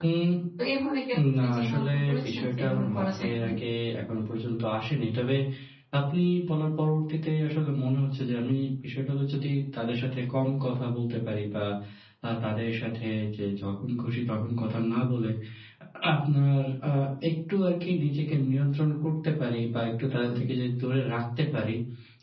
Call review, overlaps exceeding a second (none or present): present